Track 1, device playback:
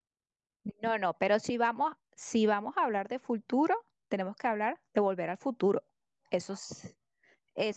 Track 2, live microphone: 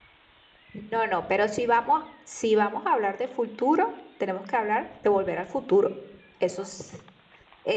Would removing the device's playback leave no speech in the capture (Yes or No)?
Yes